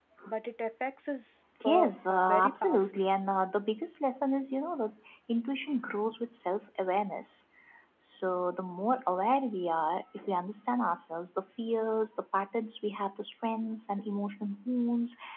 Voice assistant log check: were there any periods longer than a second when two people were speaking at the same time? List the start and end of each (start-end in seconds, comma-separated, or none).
1.6-3.0